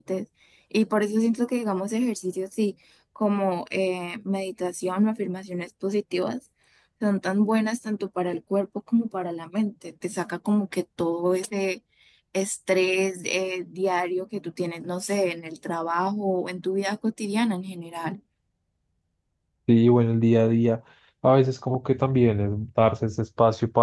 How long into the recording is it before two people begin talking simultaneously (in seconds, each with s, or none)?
none